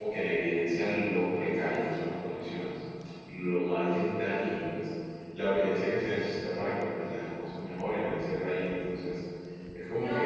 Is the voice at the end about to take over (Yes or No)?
Yes